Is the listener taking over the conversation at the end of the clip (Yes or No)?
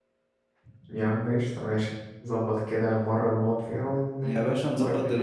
Yes